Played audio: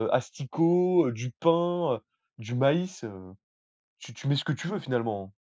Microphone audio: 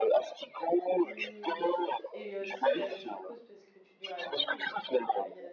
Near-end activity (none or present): present